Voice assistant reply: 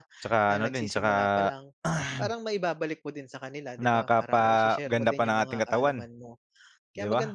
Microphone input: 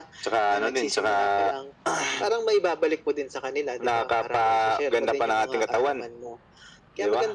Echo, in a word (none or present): present